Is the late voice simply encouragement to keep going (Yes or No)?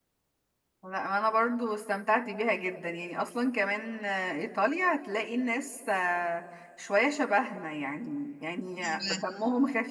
Yes